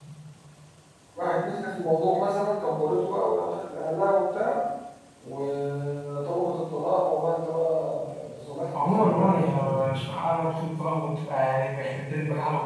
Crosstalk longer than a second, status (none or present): present